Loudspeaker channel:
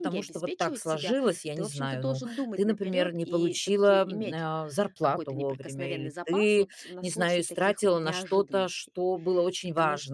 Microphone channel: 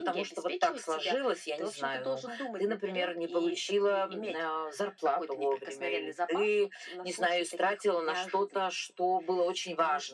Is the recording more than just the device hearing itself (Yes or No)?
No